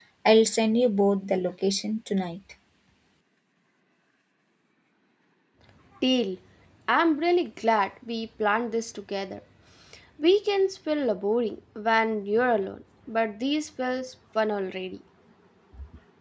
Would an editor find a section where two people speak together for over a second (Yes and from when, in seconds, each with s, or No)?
No